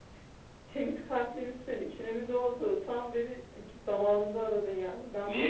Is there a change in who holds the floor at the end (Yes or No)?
No